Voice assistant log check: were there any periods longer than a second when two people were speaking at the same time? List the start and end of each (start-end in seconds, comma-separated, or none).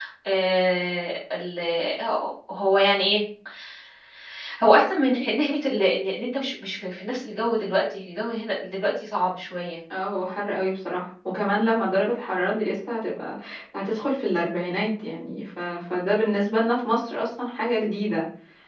none